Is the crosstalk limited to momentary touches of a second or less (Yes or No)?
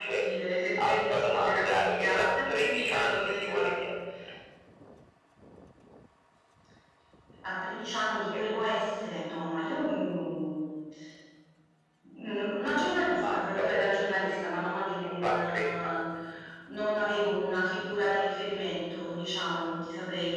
No